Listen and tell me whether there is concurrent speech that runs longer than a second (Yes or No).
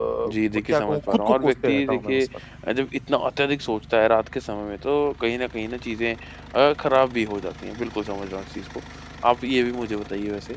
Yes